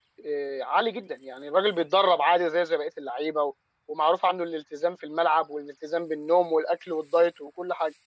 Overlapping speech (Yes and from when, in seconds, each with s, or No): No